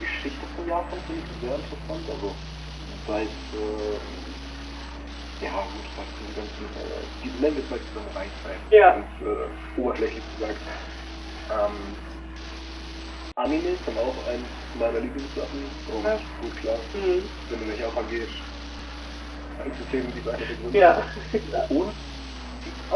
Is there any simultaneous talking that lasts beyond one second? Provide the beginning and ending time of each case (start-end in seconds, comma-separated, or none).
none